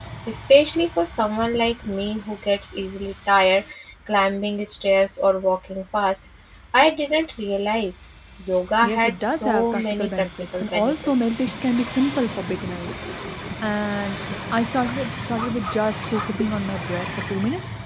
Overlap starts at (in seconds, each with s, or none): 8.8 s